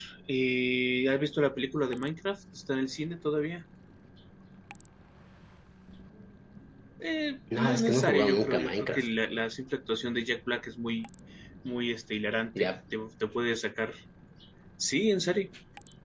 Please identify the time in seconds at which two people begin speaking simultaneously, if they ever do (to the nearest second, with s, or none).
8 s